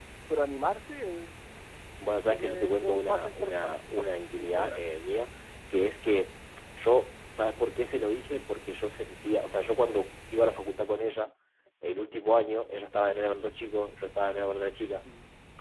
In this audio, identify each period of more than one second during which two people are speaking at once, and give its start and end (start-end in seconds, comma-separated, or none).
2.1-4.0